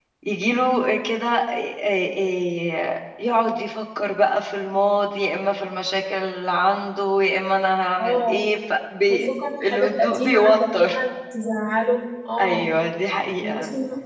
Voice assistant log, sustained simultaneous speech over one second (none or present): present